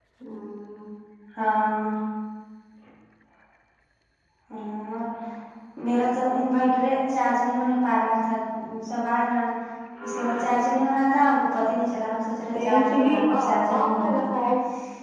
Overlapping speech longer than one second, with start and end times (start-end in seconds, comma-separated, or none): 12.5-14.2